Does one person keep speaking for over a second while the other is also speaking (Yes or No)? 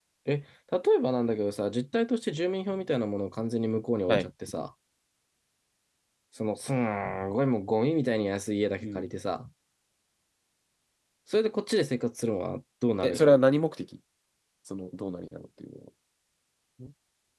No